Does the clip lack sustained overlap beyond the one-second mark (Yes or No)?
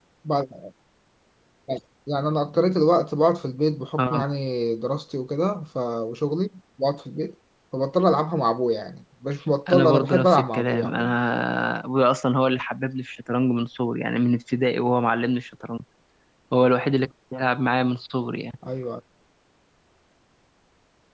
No